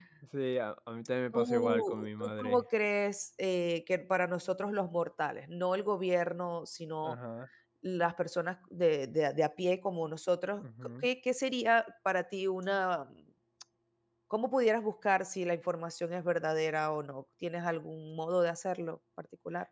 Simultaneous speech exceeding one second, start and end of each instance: 1.3-2.6

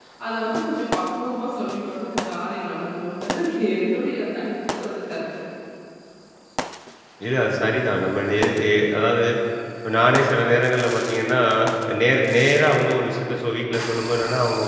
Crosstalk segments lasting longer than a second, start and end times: none

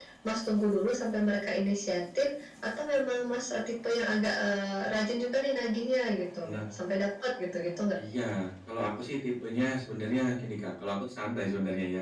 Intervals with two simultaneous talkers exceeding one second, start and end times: none

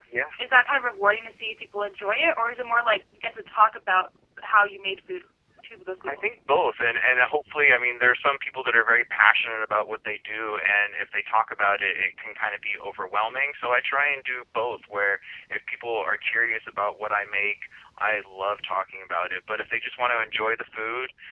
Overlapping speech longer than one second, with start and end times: none

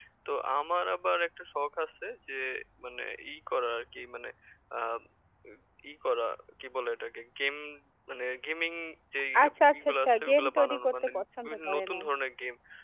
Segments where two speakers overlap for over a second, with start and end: 9.8-12.0

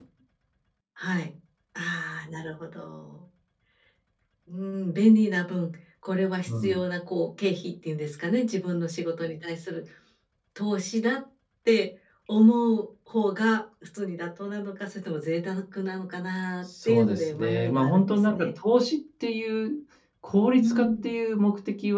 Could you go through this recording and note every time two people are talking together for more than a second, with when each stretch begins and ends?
16.9-18.5

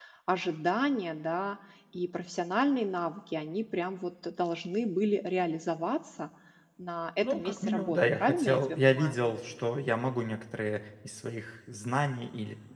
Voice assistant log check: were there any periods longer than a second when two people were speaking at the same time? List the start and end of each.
7.2-9.2

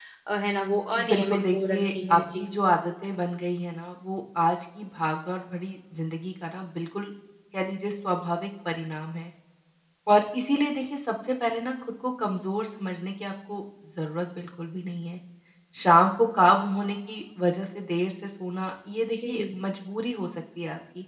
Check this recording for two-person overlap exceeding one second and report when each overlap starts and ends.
1.1-2.4

